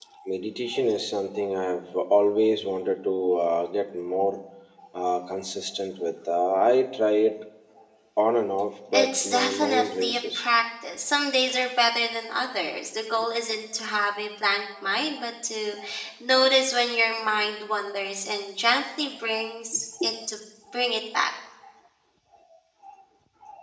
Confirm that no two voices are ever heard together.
No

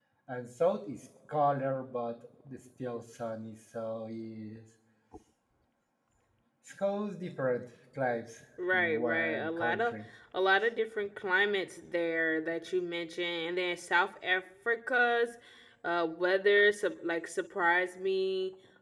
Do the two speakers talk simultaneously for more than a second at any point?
Yes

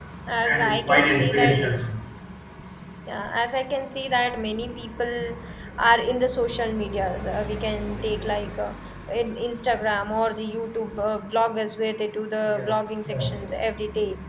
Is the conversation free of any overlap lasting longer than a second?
No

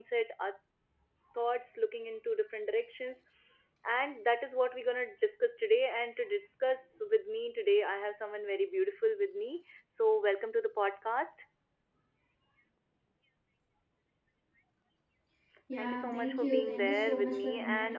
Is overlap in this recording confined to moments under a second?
No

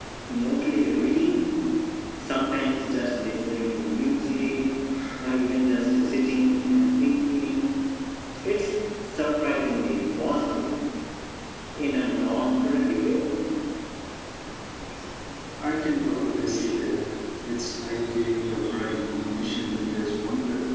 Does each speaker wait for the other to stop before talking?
Yes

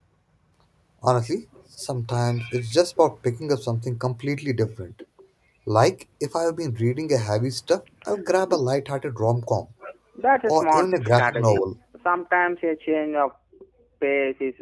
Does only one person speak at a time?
No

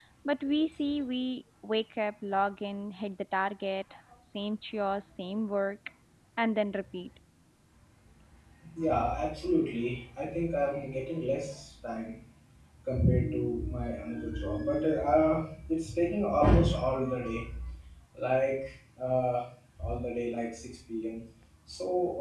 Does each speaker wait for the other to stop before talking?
Yes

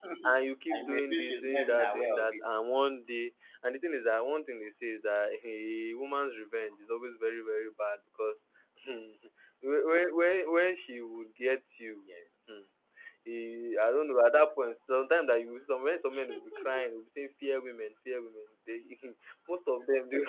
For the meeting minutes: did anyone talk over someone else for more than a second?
Yes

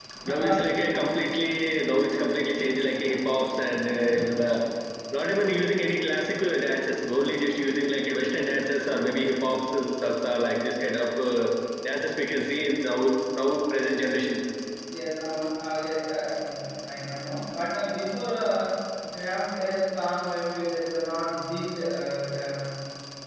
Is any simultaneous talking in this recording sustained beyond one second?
No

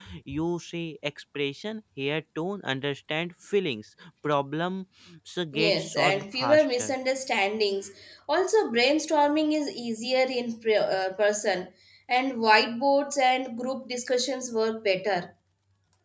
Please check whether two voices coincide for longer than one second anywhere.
Yes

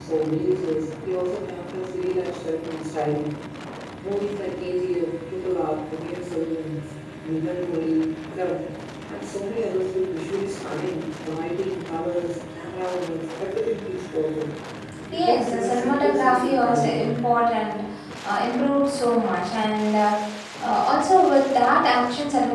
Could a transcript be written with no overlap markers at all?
No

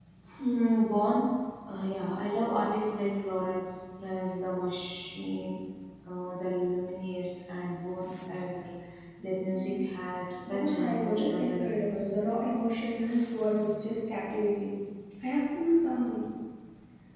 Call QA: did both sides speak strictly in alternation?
No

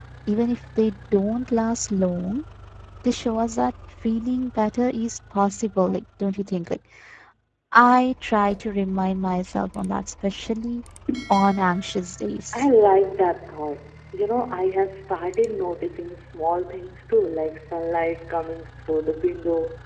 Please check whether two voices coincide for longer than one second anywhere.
No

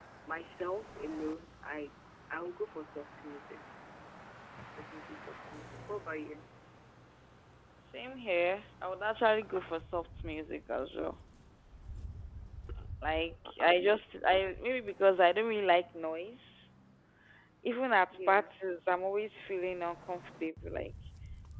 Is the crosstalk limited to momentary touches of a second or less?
Yes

